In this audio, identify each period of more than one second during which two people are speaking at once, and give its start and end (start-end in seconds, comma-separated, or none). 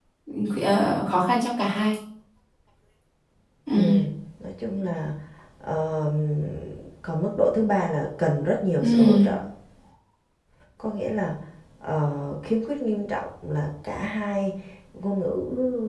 none